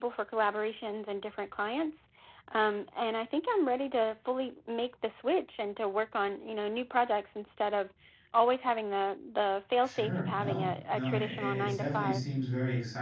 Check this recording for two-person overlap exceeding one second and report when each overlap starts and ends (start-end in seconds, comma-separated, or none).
9.8-12.2